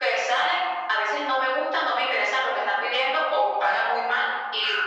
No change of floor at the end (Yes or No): Yes